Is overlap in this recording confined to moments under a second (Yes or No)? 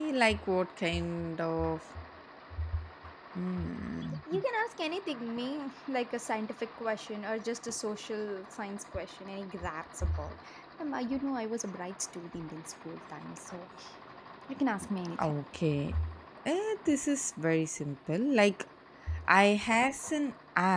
Yes